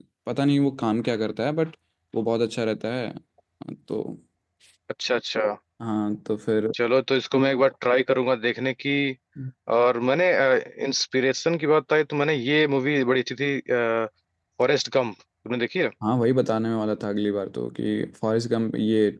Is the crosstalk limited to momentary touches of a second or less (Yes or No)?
Yes